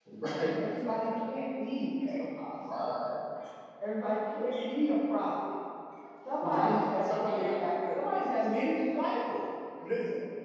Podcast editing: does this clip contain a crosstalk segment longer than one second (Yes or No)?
Yes